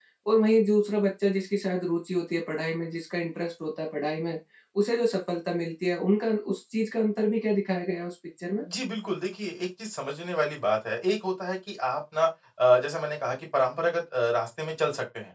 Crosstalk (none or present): none